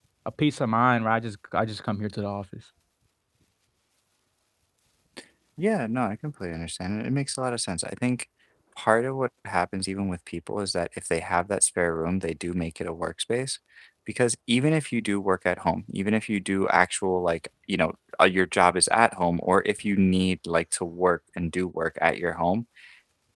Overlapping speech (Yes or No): No